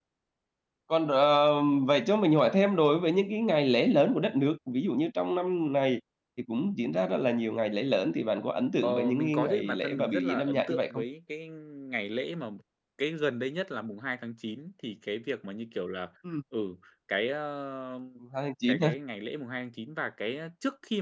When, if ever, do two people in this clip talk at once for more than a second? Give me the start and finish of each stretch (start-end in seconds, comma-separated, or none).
8.8-11.0